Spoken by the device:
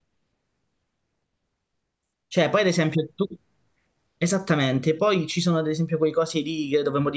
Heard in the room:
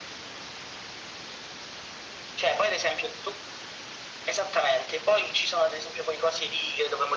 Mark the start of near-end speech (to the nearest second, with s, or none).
none